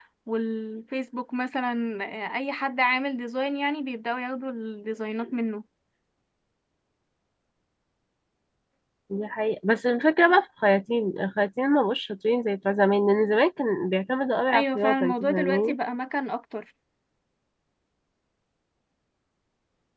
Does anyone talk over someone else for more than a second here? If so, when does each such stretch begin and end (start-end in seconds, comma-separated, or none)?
14.5-15.8